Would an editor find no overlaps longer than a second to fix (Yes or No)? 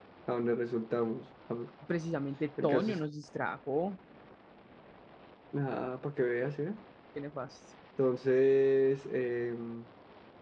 Yes